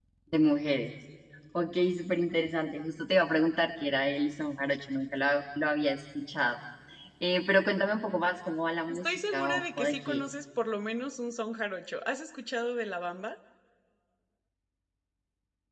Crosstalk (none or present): present